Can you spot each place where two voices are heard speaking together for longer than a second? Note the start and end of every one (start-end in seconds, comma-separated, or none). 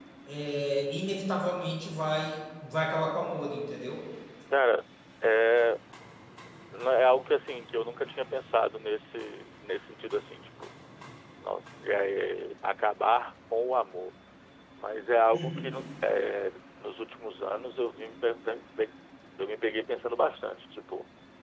none